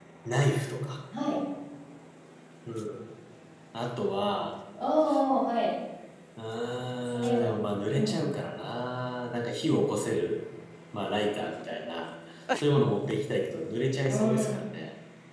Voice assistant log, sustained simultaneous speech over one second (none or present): none